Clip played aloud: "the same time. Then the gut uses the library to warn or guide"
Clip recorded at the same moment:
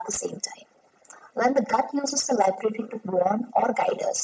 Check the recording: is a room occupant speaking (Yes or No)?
No